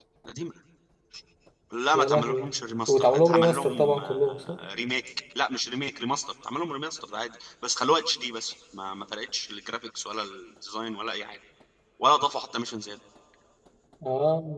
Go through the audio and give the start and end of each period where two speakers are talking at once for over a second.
2.9-4.6

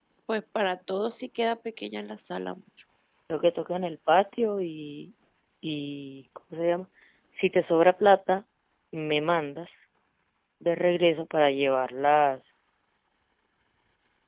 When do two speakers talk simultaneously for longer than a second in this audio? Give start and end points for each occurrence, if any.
none

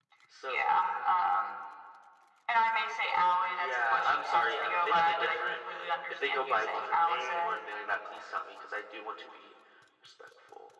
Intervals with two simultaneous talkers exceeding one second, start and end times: 3.5-5.5, 6.1-7.6

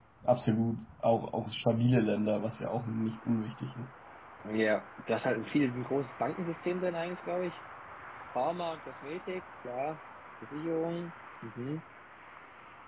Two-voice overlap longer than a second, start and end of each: none

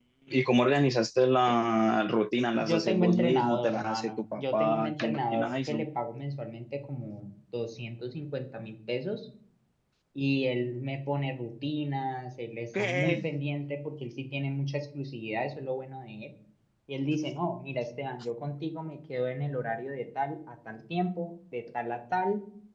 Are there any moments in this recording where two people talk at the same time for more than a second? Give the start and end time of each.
2.6-5.8

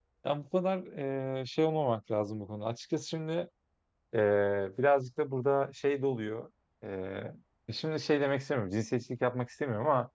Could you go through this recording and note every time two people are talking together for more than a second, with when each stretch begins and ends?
none

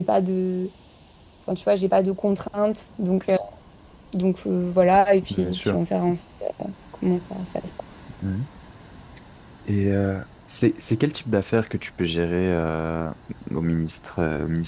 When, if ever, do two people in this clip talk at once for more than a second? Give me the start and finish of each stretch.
none

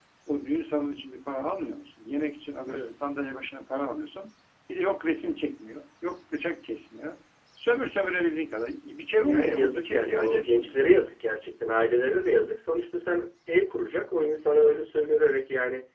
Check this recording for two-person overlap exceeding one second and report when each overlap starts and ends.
9.2-10.8

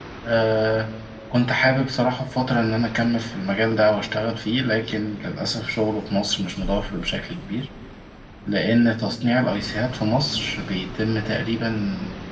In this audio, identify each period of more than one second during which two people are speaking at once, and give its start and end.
none

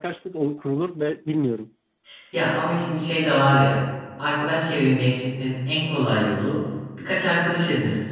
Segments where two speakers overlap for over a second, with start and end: none

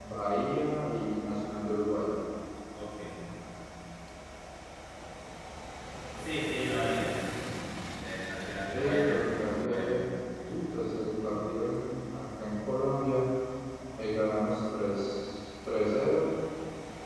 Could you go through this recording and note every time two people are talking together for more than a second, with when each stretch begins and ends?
8.7-10.0

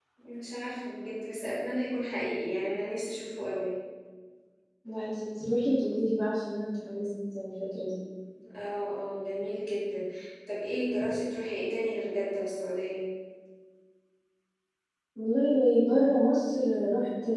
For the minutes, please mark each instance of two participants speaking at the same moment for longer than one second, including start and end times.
none

